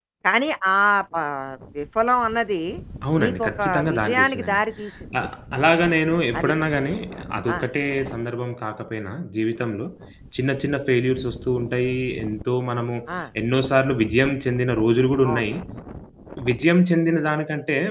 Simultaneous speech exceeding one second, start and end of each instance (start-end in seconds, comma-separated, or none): 3.2-4.6